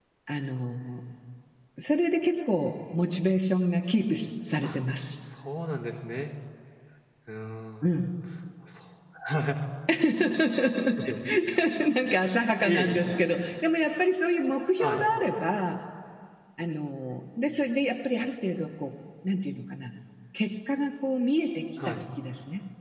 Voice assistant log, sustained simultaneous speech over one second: none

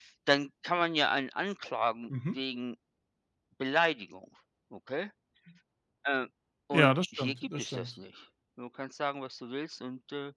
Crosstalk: present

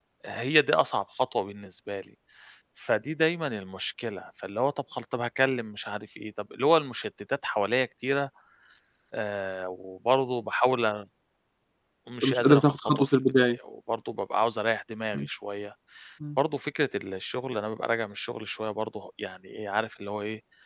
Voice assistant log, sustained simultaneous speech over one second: present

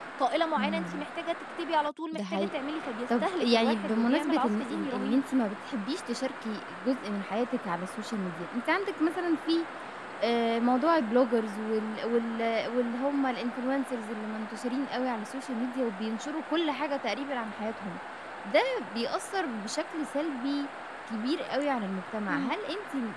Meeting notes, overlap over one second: present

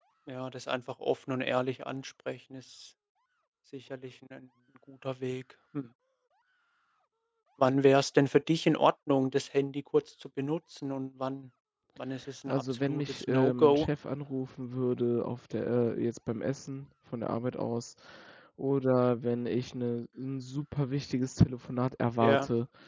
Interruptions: present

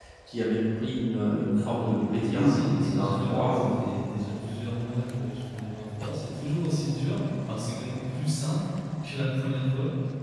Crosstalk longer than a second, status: present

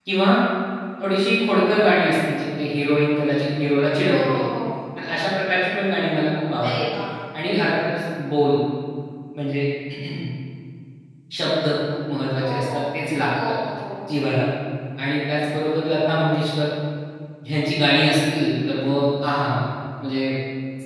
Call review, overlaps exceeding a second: none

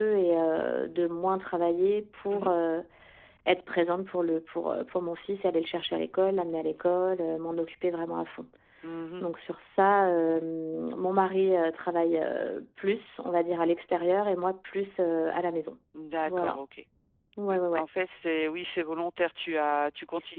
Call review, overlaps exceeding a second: none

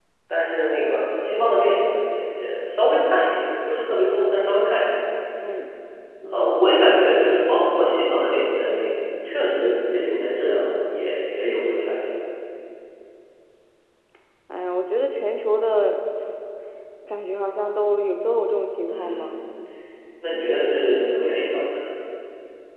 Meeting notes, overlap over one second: none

